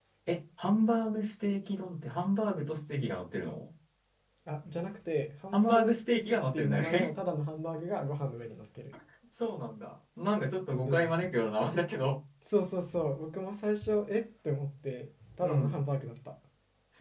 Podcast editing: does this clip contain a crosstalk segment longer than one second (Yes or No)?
Yes